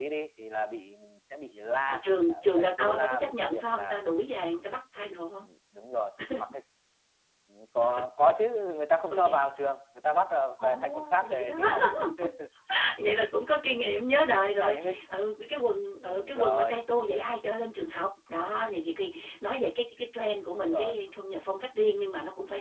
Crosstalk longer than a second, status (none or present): present